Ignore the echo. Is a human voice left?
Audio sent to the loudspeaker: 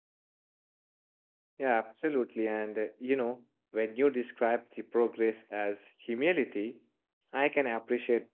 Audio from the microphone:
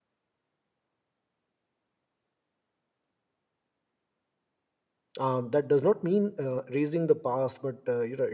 Yes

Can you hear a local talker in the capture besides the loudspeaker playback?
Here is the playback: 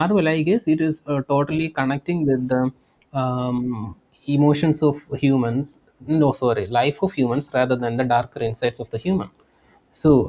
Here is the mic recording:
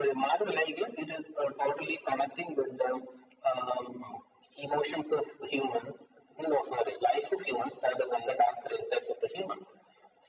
No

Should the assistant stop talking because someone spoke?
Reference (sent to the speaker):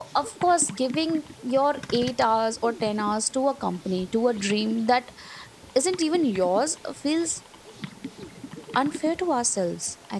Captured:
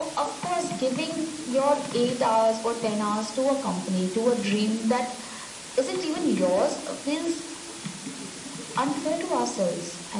No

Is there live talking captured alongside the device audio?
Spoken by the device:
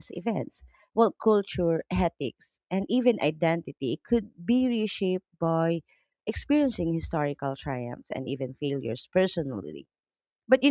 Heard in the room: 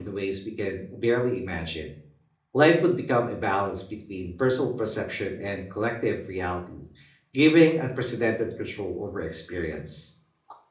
Yes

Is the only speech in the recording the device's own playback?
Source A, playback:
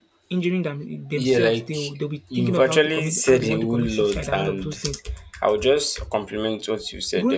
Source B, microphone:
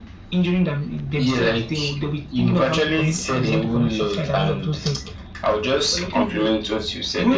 No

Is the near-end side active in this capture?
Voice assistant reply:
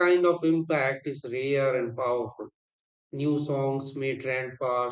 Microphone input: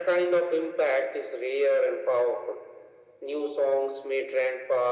No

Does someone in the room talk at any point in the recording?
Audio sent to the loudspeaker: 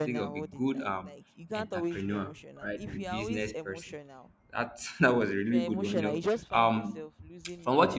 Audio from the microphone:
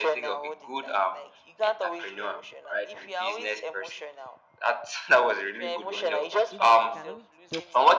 Yes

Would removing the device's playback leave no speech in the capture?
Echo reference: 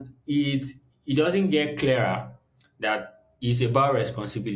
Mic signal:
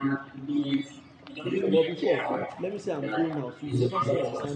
No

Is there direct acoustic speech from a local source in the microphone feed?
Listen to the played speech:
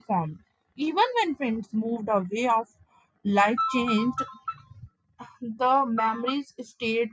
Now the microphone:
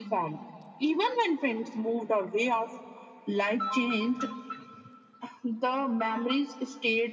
No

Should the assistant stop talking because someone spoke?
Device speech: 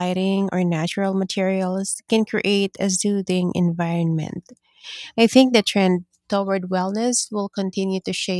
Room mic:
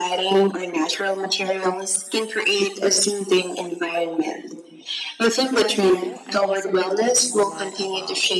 Yes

